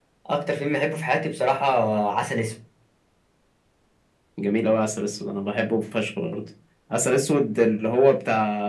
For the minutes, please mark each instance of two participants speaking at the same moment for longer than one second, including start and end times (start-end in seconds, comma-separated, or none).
none